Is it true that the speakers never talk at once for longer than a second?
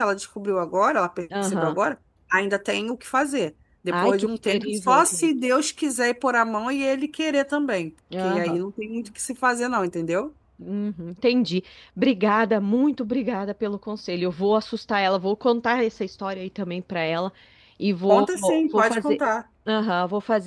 No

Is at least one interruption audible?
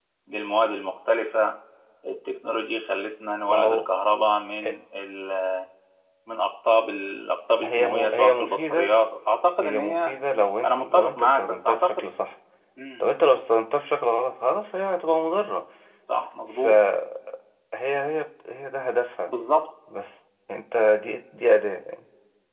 Yes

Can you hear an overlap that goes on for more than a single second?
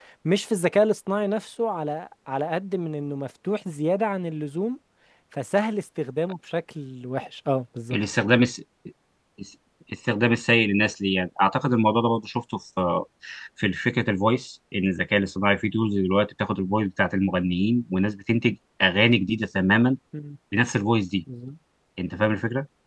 No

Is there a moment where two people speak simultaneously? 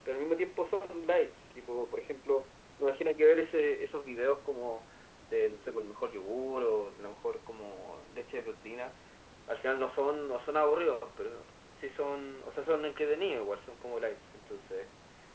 No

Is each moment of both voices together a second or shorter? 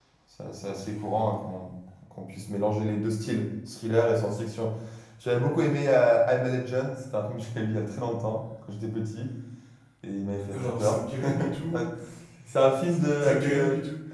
No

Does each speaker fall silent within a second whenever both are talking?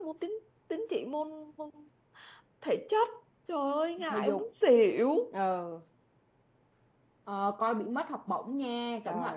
Yes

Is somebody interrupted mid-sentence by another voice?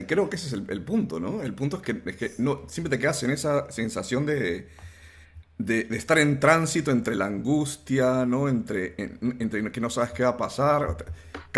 No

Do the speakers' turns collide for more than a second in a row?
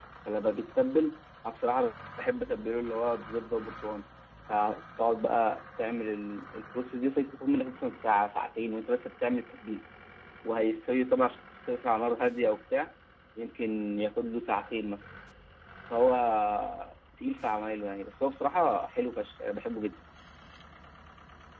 No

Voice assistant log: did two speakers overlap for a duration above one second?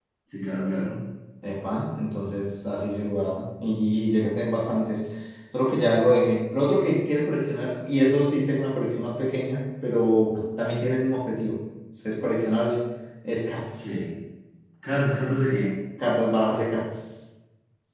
No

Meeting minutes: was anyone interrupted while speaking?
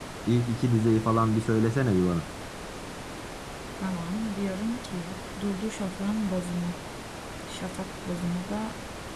No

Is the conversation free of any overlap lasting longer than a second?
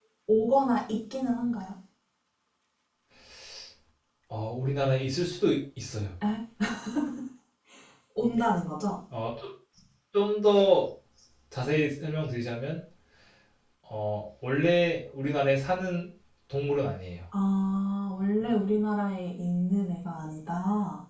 Yes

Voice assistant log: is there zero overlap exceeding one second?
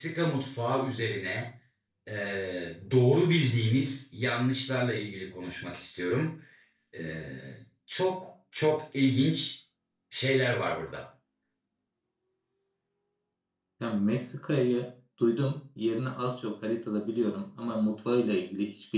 Yes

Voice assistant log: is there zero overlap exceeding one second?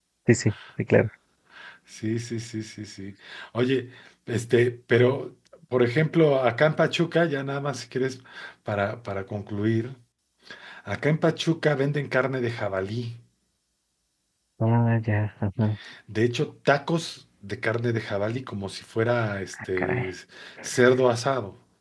Yes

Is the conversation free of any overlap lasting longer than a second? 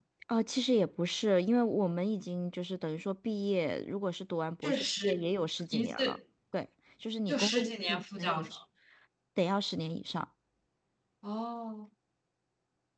No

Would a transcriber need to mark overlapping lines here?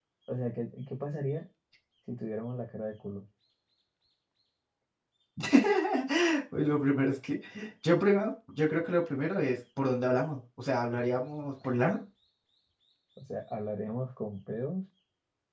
No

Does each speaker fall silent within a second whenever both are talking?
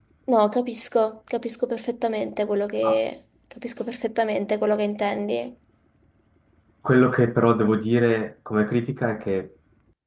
Yes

